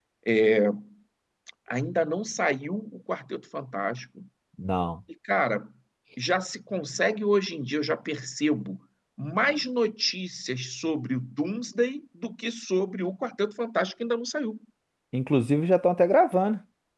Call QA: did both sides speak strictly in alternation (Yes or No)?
Yes